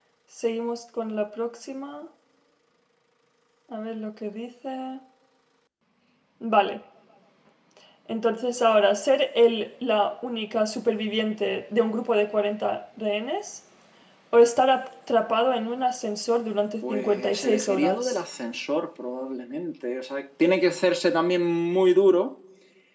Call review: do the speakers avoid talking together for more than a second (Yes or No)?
No